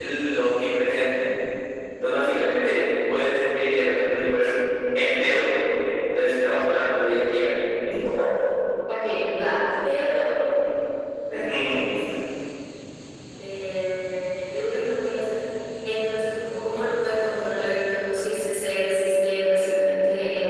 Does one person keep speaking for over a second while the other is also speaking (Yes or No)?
No